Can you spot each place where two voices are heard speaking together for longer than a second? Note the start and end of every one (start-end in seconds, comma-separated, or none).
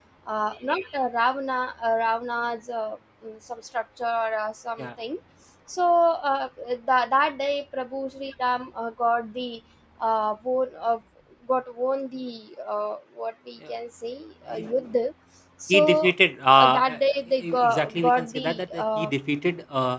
17.4-19.1